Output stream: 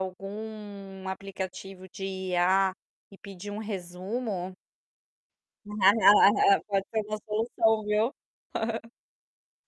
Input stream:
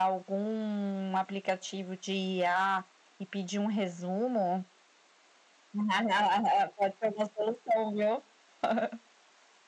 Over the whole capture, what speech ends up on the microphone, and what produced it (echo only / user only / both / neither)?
echo only